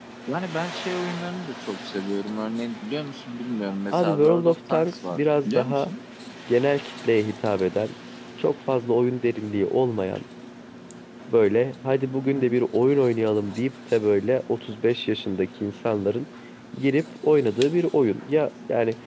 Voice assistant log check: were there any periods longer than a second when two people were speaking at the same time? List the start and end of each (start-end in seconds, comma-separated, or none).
3.9-5.9